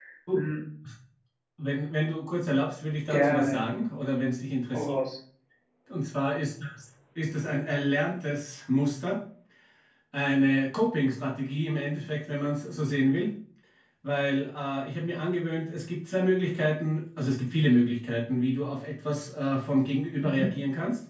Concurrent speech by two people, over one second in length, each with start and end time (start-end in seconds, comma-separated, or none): none